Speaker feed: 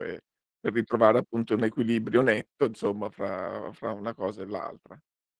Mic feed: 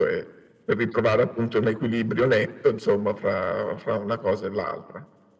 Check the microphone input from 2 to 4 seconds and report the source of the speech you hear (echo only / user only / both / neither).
echo only